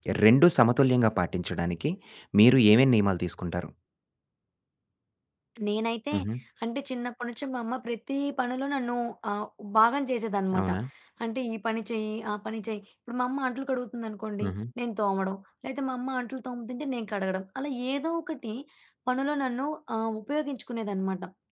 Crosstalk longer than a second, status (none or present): none